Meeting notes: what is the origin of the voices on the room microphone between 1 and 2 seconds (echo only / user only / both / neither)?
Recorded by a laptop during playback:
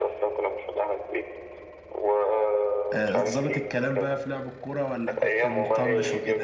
echo only